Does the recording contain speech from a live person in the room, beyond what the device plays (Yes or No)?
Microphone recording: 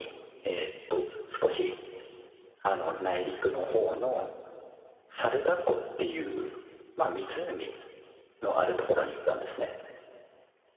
No